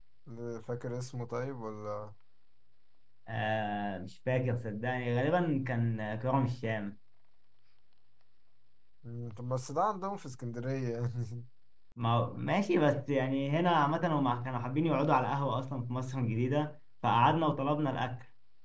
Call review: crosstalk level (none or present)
none